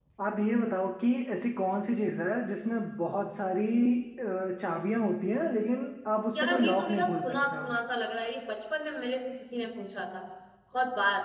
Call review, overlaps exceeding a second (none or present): present